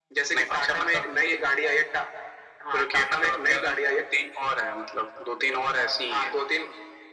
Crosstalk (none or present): present